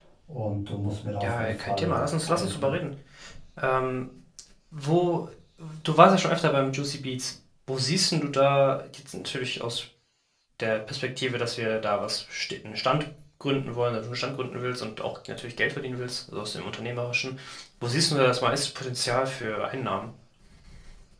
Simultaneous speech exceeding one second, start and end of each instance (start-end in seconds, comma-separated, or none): 1.2-2.7